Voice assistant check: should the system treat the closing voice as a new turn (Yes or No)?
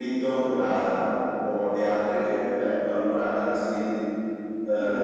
No